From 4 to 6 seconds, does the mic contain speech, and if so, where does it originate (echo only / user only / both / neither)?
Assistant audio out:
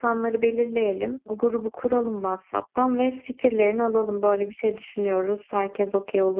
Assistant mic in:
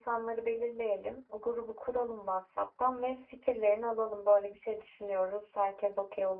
echo only